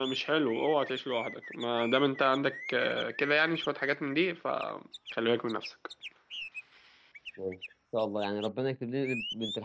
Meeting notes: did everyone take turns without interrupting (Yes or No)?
Yes